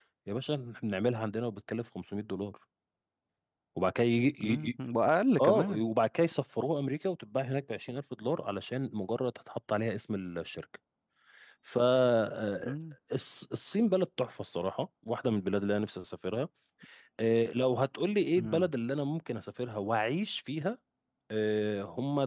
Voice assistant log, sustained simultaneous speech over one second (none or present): none